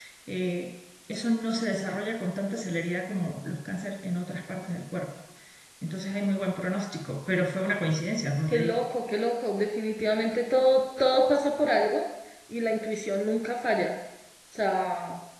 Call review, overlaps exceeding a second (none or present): none